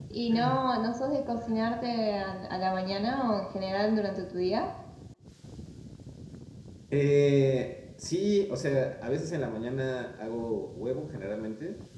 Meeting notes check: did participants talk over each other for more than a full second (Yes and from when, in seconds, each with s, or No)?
No